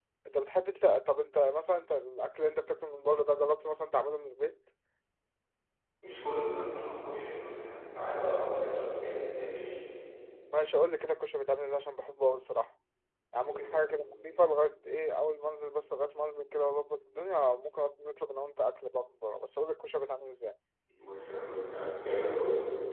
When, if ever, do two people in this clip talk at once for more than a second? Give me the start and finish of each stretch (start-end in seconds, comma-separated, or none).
none